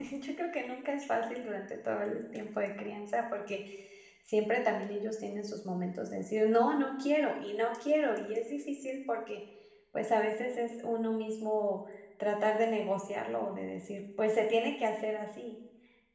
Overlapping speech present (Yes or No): No